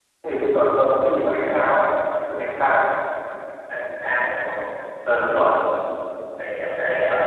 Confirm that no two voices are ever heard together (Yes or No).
Yes